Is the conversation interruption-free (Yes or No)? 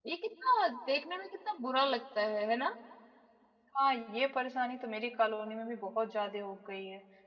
Yes